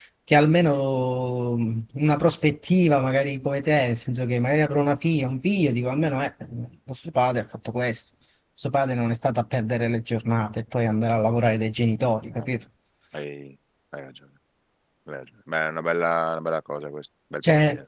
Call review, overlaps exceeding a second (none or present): none